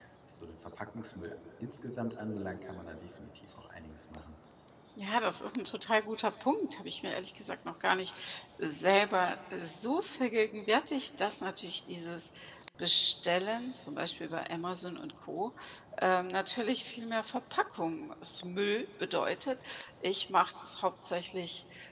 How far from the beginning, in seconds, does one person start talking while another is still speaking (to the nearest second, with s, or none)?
none